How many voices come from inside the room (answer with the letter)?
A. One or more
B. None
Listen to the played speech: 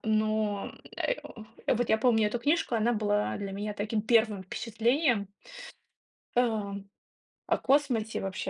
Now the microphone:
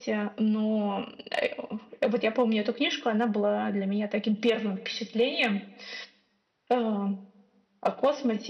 B